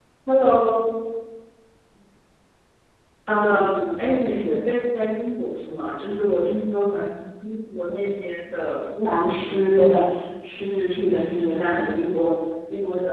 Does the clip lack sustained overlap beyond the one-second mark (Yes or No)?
No